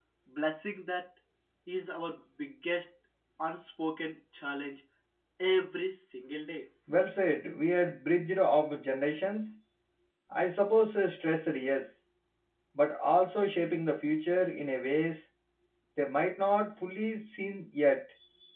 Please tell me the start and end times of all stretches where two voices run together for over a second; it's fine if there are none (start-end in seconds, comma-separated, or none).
none